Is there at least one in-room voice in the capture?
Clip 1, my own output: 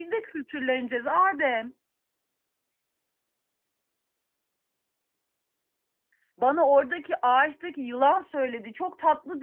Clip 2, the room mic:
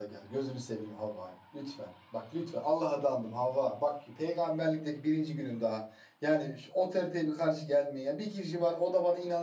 Yes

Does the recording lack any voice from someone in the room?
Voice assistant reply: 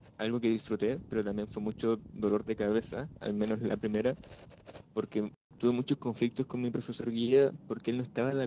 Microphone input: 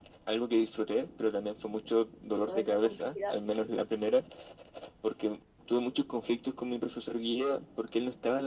No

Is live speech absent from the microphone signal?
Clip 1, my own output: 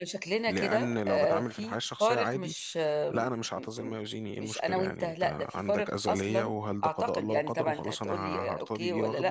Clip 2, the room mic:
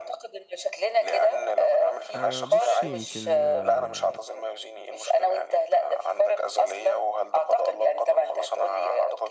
No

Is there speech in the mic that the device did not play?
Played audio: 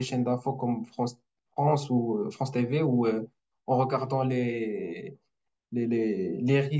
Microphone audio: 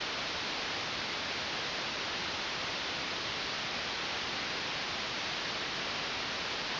No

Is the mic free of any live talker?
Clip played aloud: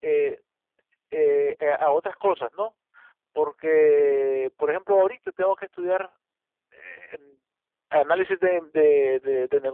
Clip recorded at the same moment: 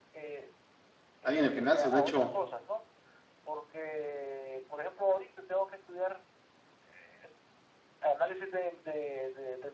No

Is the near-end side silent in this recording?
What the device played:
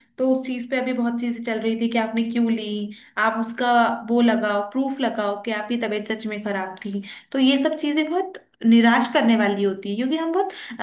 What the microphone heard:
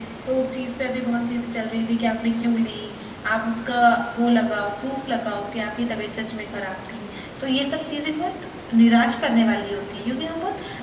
Yes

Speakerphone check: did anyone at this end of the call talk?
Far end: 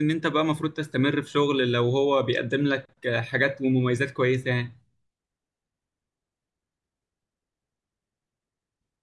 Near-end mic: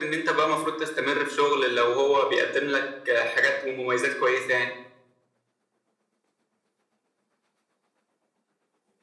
No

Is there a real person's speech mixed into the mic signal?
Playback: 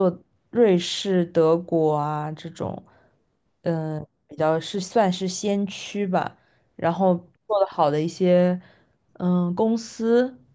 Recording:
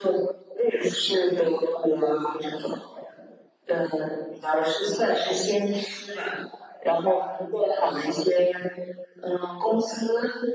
No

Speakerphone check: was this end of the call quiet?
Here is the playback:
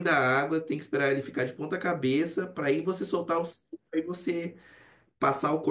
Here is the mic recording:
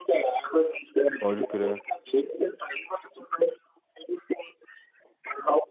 No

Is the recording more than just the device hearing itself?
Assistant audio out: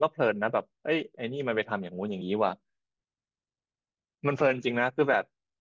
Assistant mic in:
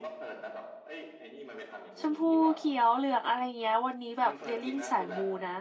Yes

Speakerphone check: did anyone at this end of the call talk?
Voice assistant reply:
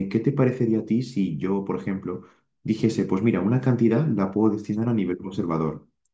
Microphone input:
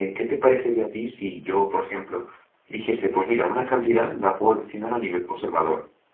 No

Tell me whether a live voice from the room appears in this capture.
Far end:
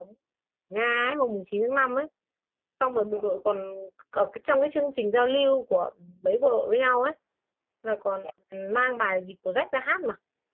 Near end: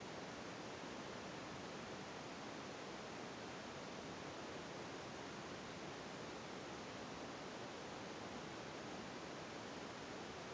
No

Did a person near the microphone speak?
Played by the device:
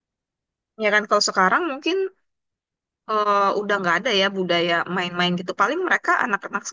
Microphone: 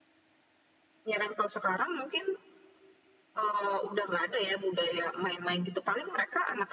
No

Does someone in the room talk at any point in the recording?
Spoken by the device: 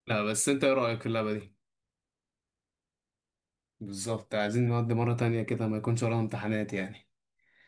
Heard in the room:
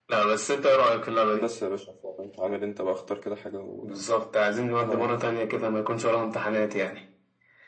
Yes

